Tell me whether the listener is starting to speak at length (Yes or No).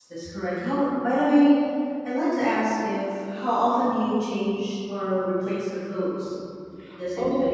No